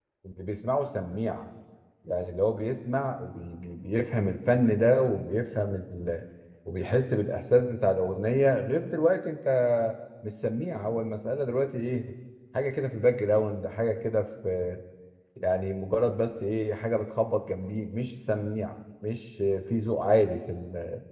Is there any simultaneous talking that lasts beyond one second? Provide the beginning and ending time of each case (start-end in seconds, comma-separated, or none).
none